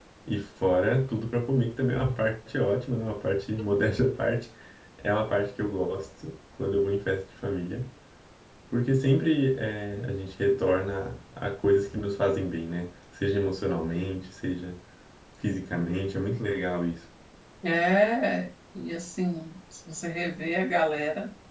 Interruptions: none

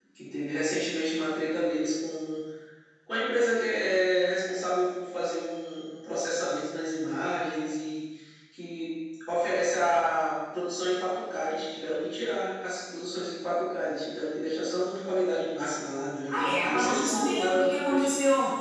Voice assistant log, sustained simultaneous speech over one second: present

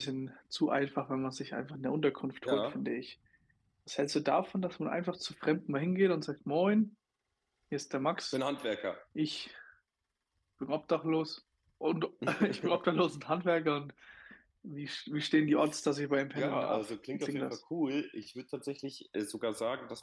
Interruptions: present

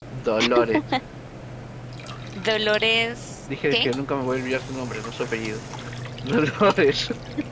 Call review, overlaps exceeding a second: none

